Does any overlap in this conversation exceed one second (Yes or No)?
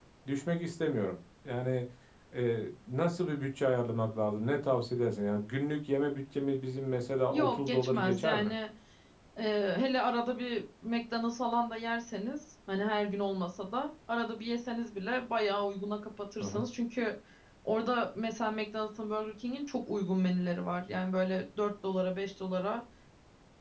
Yes